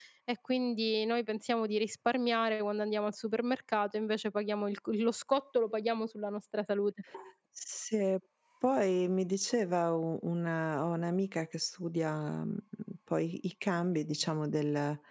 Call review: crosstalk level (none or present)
none